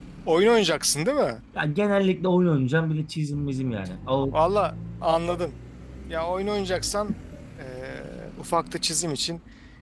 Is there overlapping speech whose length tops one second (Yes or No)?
No